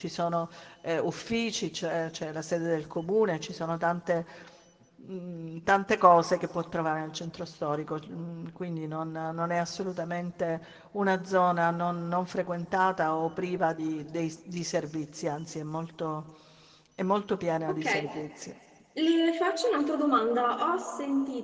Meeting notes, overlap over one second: none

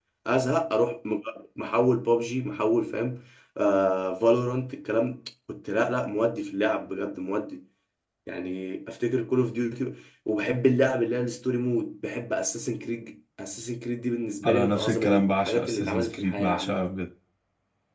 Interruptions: present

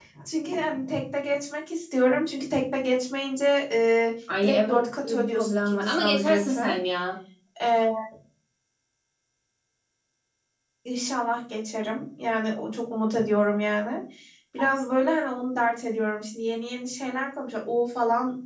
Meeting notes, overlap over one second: present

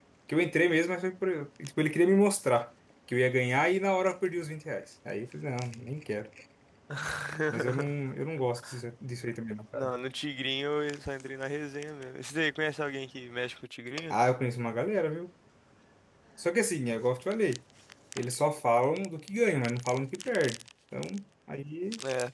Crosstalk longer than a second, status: none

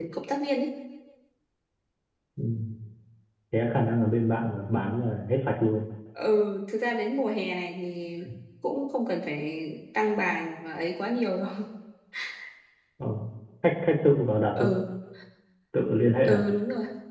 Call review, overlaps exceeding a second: none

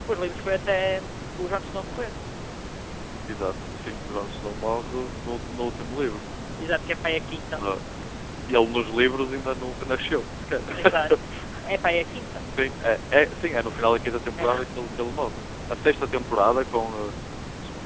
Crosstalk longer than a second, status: none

